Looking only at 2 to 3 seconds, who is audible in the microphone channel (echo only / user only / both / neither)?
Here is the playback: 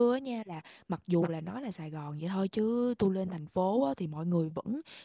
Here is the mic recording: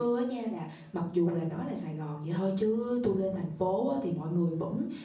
echo only